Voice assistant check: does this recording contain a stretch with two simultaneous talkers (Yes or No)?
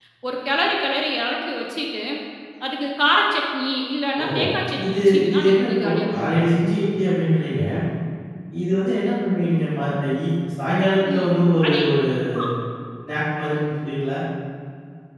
Yes